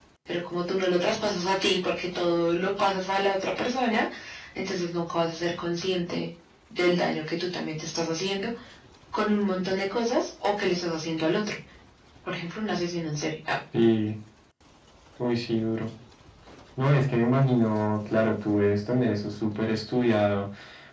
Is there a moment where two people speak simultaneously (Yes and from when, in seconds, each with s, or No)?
No